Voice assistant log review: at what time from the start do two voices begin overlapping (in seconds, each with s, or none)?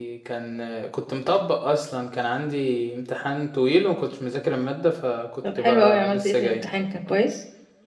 5.4 s